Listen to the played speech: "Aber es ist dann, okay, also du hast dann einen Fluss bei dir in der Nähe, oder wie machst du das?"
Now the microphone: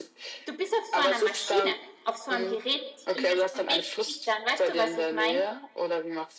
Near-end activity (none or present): present